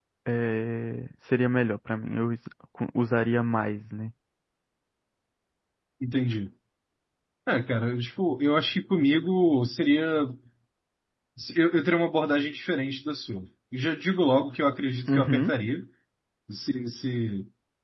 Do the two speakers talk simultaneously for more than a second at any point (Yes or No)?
No